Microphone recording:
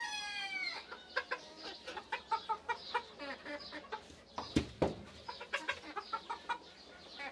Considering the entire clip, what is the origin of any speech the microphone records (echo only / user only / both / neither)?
neither